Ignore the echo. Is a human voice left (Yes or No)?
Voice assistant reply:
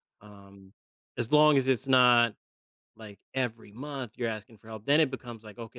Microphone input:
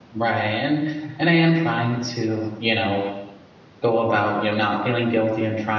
Yes